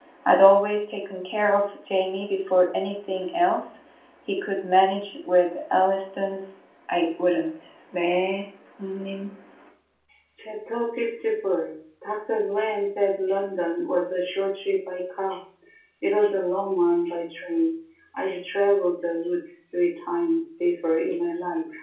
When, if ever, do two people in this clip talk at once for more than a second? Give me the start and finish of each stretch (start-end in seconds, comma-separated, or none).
none